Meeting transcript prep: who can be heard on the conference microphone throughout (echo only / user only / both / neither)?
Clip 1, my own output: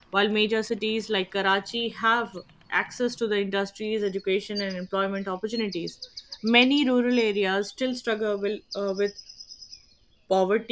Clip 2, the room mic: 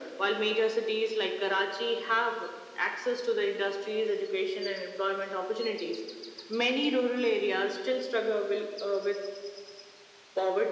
echo only